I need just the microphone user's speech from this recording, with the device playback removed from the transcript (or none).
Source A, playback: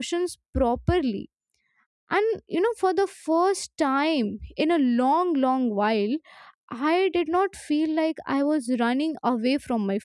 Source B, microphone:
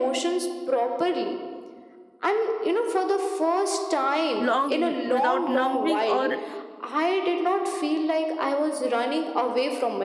long wi- without numbing or